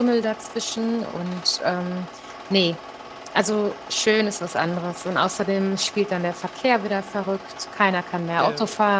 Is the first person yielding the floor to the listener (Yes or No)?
No